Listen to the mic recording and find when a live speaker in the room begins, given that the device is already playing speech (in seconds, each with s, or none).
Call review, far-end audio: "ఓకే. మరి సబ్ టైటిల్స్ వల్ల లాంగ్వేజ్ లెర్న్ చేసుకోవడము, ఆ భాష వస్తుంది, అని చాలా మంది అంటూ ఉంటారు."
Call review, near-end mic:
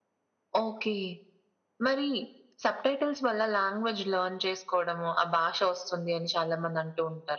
none